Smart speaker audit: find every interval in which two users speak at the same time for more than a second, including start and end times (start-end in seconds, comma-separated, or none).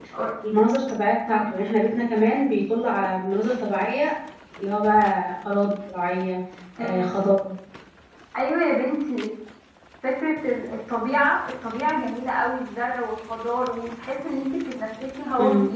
none